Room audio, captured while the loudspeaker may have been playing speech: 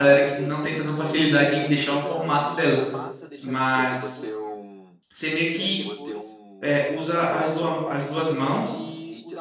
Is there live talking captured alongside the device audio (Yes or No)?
Yes